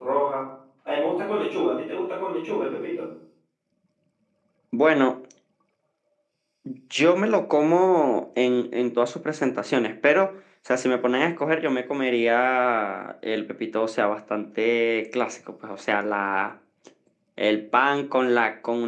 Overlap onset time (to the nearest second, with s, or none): none